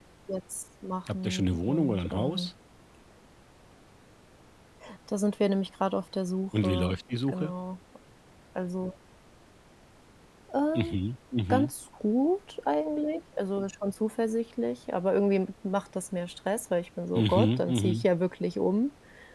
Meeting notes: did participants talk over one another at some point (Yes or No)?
Yes